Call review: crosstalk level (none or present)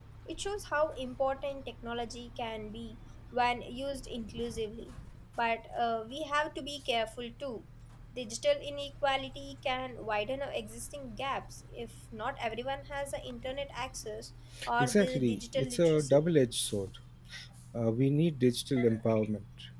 present